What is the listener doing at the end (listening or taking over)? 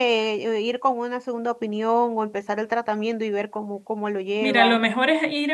taking over